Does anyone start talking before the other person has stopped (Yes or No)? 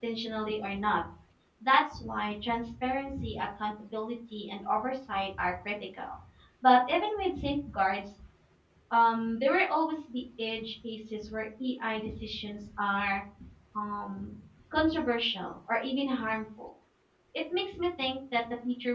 No